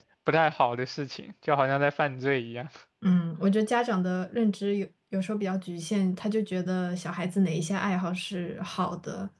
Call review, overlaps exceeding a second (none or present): none